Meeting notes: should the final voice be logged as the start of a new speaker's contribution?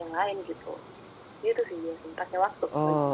Yes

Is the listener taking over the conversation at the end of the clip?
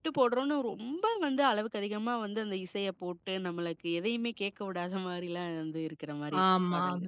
Yes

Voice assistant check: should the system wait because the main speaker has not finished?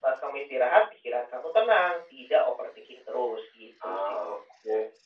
No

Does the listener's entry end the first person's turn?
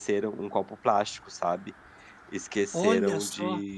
No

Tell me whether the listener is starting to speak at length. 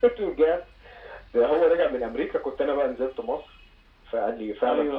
No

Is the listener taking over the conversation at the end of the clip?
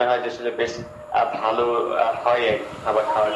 Yes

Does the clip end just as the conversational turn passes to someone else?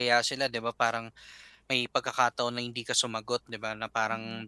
No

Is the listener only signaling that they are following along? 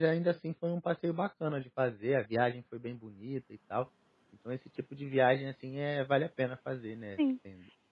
No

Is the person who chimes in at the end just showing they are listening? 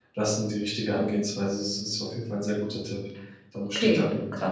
No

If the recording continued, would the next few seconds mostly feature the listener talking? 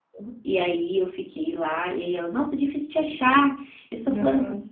No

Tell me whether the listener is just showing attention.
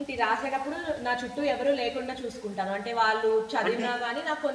Yes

